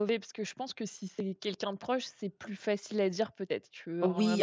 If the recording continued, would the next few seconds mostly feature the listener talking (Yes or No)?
Yes